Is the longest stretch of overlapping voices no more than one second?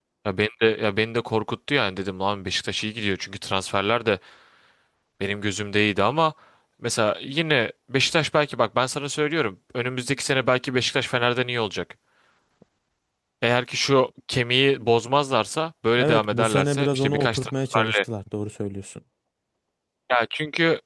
No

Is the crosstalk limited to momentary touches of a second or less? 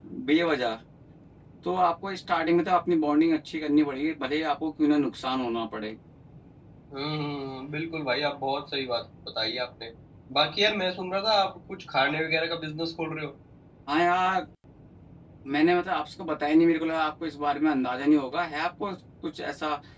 Yes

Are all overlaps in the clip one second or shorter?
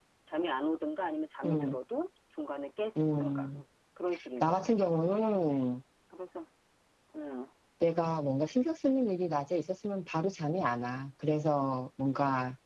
Yes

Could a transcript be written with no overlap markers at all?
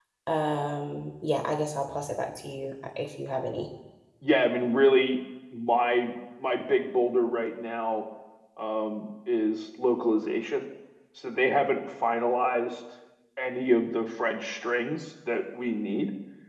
Yes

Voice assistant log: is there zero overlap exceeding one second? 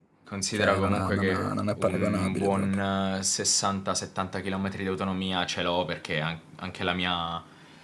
No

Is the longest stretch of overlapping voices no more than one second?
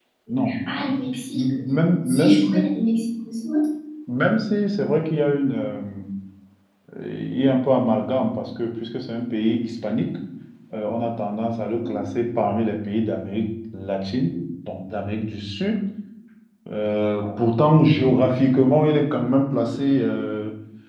No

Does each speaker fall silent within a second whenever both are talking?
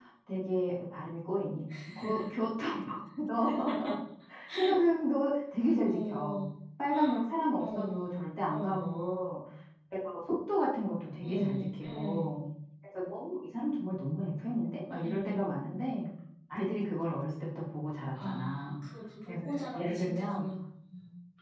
No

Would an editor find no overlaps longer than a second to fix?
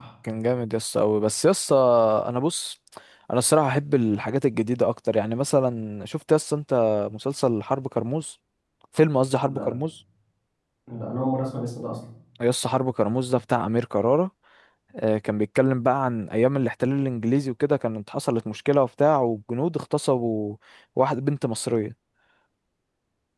Yes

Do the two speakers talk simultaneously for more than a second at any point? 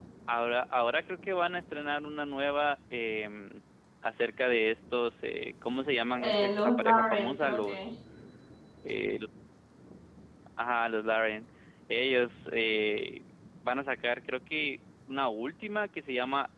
Yes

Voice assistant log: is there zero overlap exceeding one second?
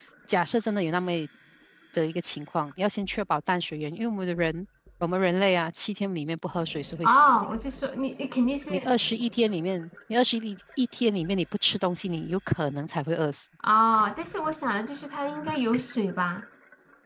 Yes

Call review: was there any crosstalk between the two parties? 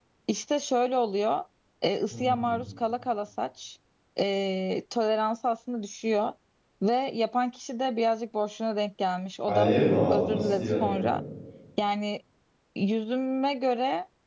Yes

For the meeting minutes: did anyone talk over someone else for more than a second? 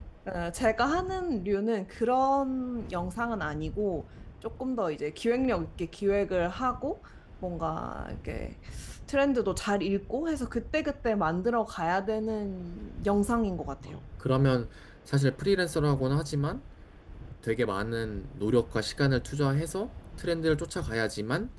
No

